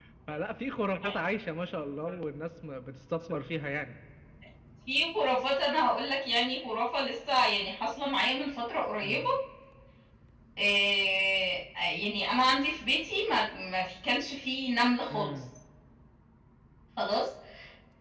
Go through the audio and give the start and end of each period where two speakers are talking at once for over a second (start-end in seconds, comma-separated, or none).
none